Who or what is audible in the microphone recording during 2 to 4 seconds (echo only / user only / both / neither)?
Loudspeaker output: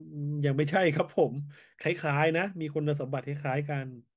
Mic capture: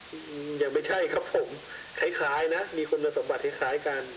echo only